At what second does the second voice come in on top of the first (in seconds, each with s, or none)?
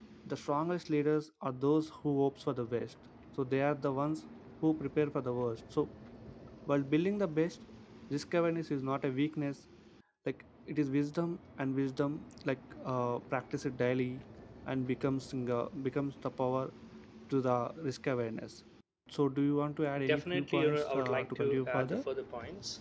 20.1 s